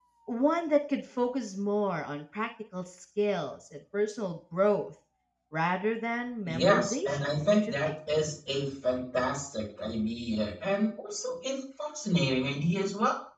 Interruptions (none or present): present